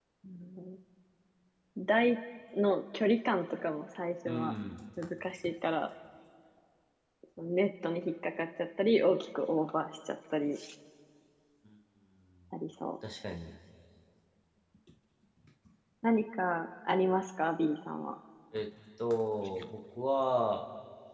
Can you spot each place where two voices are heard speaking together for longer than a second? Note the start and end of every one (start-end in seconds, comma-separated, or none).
none